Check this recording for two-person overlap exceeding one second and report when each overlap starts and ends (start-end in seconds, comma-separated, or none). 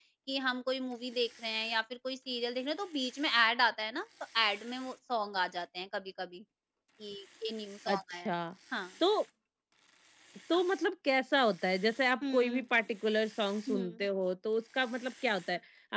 none